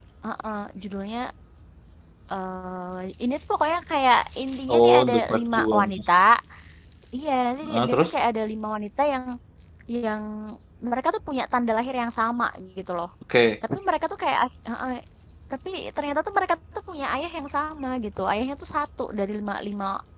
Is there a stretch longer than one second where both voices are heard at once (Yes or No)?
Yes